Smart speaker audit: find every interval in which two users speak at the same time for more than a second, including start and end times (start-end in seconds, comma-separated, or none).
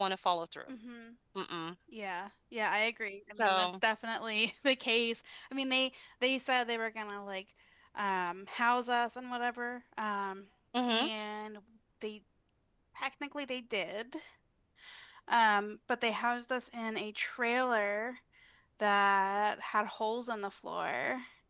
none